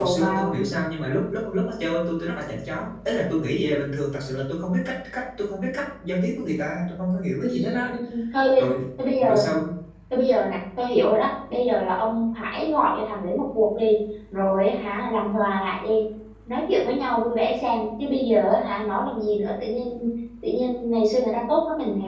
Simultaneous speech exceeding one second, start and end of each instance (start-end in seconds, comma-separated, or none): none